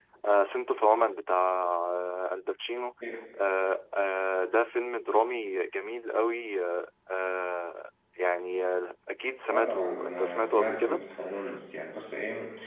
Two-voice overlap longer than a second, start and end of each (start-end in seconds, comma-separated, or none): 9.5-11.0